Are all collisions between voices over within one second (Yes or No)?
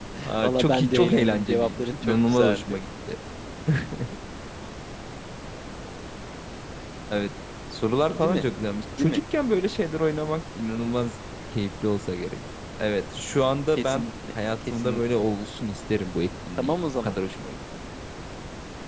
No